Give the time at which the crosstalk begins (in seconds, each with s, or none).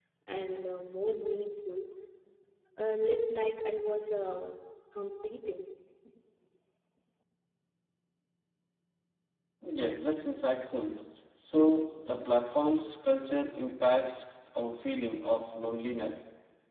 none